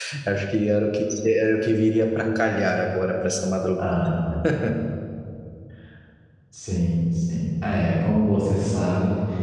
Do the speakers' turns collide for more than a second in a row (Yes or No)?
No